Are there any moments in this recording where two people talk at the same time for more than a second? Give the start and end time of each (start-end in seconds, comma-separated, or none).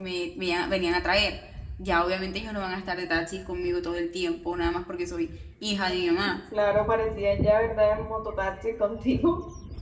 none